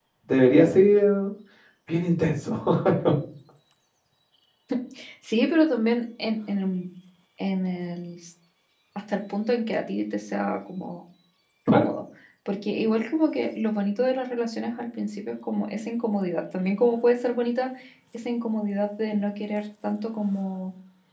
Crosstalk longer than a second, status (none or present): none